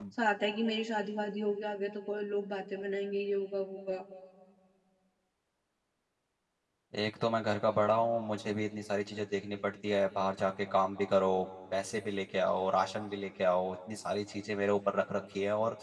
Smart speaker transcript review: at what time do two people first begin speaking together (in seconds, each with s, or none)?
none